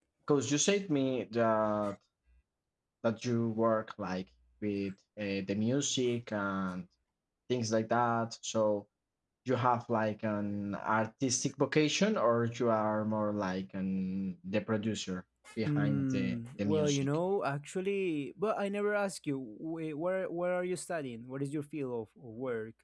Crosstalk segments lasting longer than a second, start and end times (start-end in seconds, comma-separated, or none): 15.7-17.1